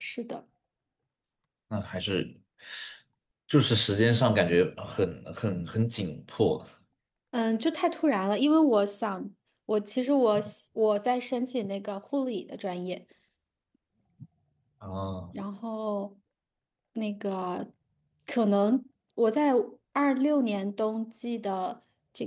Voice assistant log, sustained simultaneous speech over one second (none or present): none